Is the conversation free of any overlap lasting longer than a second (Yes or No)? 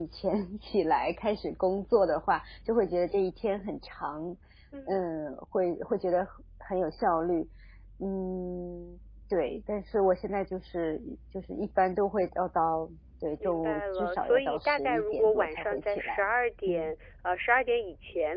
No